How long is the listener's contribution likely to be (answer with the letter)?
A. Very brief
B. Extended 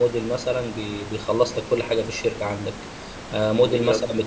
A